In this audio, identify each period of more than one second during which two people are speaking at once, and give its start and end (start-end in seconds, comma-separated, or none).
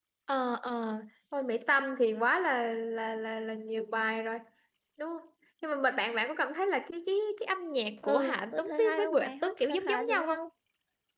8.0-10.4